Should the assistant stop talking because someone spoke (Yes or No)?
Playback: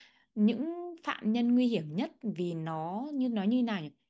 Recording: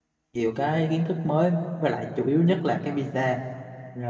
Yes